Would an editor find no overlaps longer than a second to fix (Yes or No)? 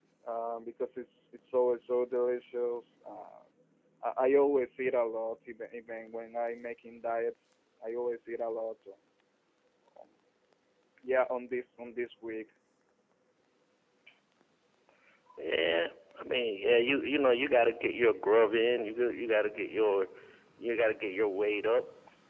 Yes